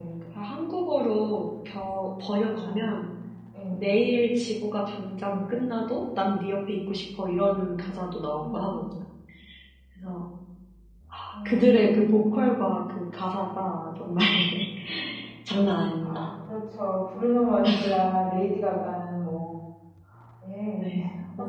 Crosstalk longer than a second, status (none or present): present